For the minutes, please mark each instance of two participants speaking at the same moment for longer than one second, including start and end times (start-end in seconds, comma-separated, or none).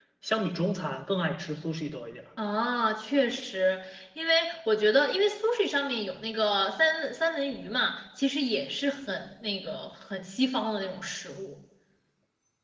none